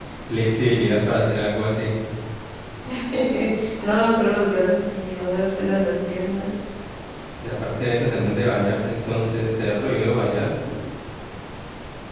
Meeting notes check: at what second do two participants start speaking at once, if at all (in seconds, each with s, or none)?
none